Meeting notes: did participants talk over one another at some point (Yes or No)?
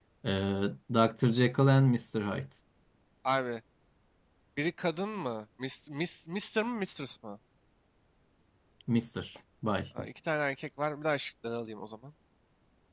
No